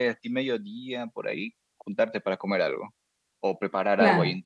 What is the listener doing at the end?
listening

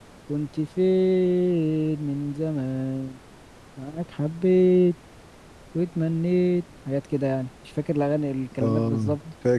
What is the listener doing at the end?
taking over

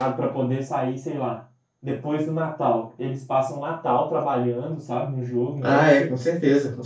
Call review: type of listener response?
taking over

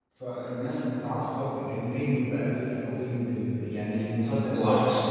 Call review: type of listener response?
listening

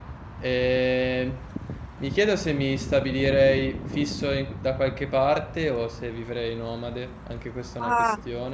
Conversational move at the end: taking over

